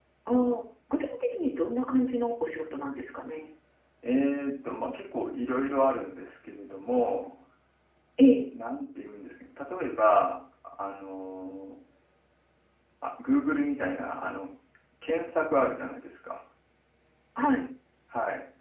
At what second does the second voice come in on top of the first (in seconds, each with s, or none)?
none